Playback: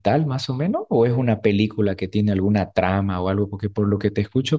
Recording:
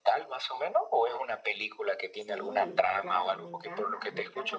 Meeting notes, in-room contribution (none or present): present